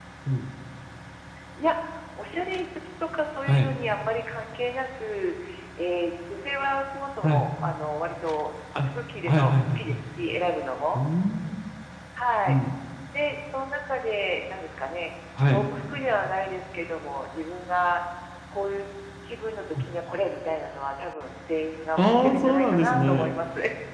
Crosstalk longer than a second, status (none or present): present